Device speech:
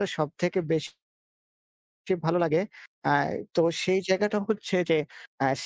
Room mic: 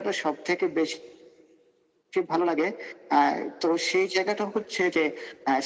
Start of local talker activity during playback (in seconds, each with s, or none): none